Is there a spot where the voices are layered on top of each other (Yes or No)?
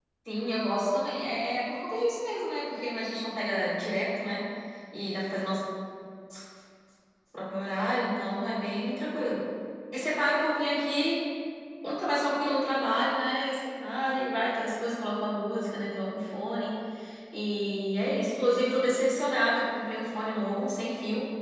No